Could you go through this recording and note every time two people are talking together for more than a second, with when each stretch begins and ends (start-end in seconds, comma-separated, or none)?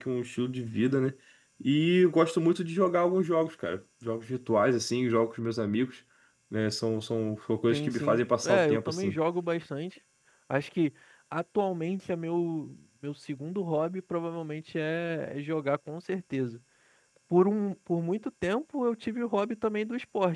7.7-9.2